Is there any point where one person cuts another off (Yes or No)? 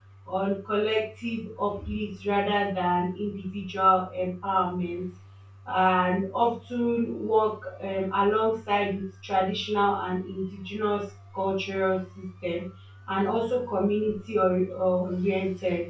No